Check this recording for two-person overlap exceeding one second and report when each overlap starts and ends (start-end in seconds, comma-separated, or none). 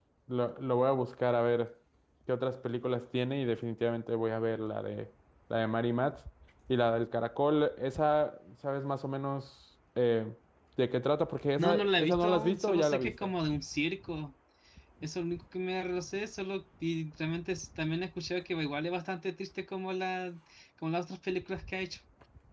11.6-13.3